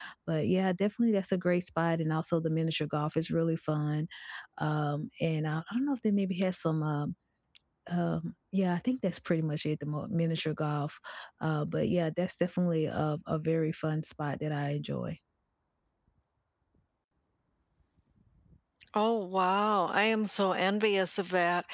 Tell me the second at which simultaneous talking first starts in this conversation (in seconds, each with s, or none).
none